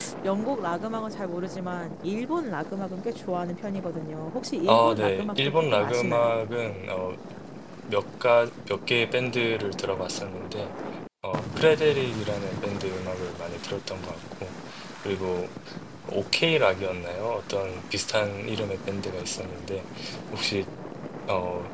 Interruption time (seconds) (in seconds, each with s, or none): 4.6 s